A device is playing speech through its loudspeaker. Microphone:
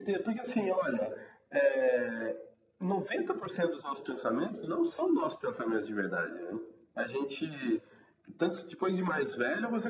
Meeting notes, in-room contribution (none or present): none